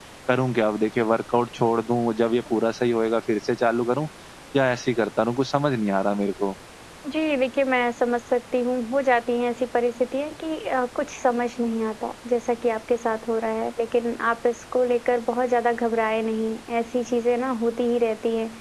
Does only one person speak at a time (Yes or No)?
Yes